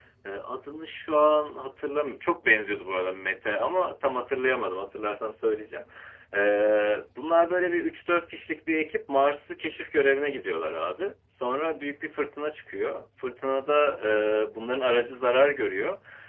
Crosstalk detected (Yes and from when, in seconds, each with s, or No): No